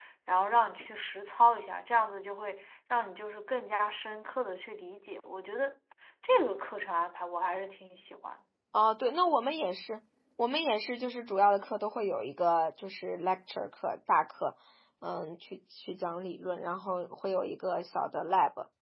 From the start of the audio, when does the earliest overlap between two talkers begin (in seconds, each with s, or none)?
none